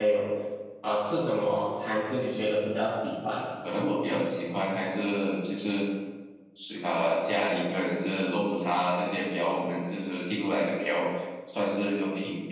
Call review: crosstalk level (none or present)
none